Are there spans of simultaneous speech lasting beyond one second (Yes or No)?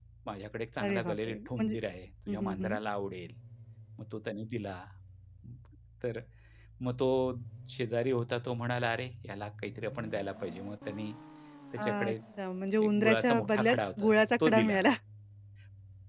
Yes